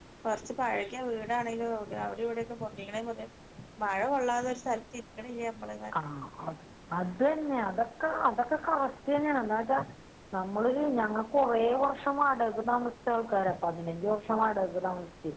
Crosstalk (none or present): none